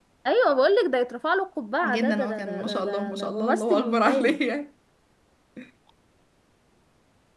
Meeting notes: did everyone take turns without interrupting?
No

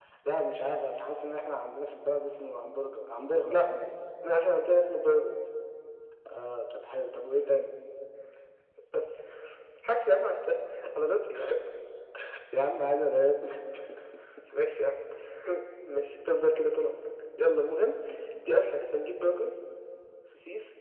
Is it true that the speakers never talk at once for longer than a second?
Yes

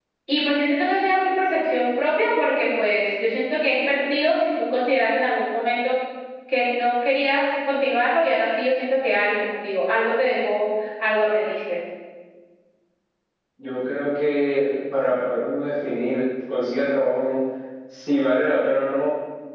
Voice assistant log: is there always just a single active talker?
Yes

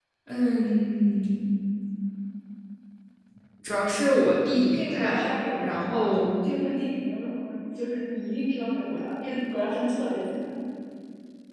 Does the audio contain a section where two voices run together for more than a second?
Yes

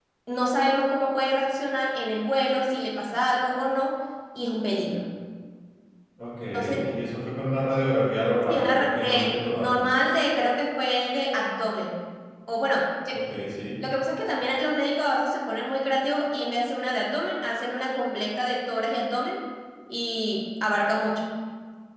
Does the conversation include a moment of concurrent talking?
Yes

